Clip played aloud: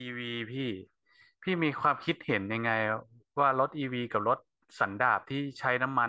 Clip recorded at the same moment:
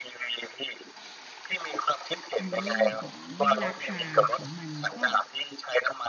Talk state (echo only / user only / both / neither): both